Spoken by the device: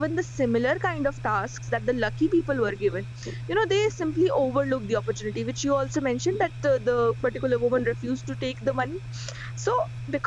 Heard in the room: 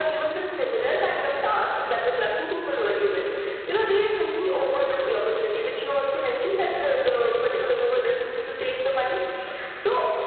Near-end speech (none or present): none